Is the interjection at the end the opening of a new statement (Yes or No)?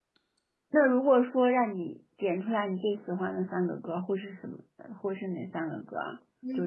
Yes